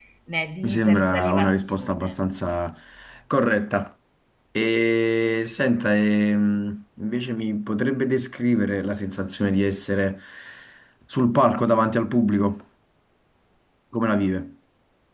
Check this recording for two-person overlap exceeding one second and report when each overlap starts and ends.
0.6-2.1

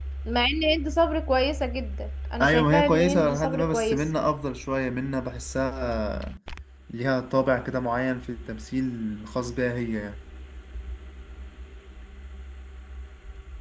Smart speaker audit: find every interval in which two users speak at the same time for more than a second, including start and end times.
2.4-4.1

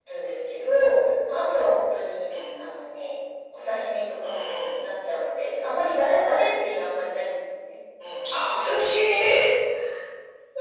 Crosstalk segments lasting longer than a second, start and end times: none

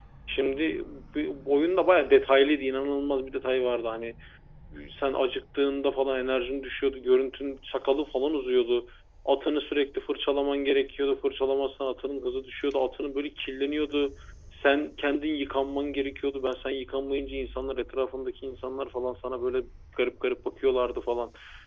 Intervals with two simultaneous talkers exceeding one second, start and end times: none

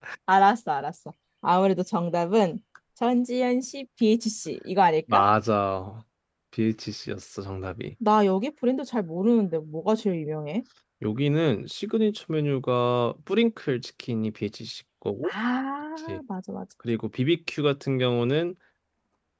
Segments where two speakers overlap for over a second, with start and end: none

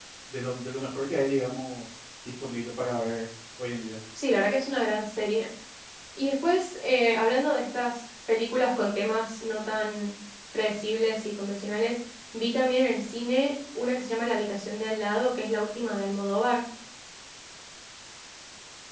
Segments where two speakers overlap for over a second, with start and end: none

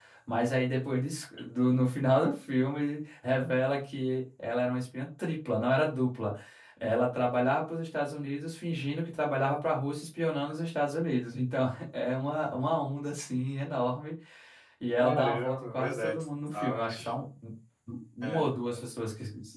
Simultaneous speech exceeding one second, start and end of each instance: 15.0-17.1

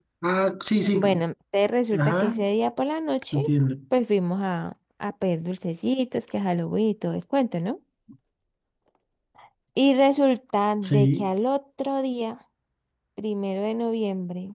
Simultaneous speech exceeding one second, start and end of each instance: none

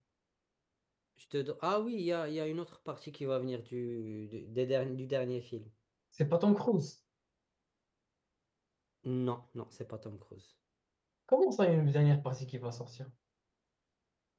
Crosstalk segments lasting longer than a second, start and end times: none

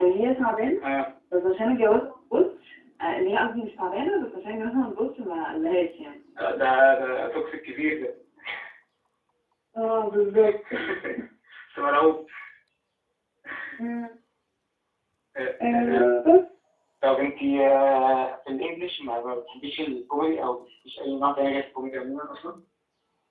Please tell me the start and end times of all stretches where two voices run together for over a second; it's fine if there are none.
none

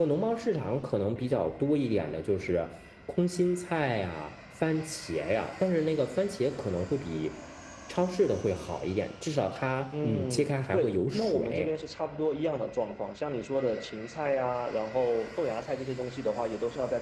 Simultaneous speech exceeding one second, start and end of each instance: 10.0-11.7

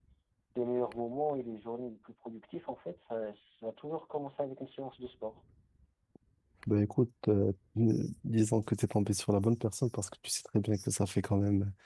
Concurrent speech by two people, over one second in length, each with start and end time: none

